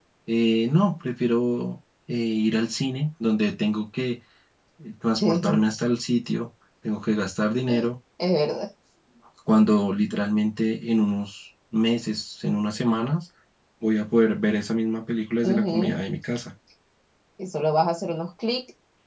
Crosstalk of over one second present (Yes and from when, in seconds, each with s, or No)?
No